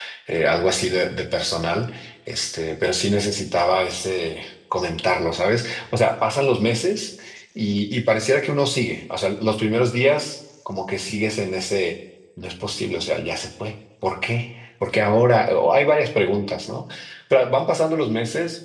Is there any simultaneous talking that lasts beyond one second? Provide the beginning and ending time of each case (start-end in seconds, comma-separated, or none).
none